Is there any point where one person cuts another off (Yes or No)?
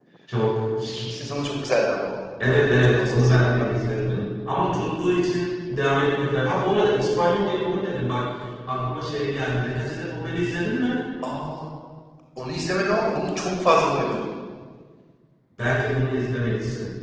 Yes